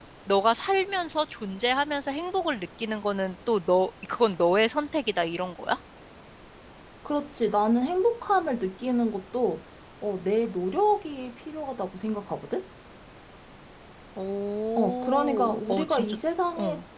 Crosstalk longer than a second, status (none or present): present